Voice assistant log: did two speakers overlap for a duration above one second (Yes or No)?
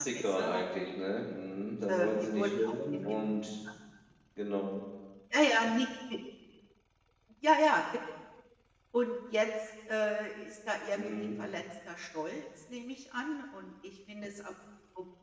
Yes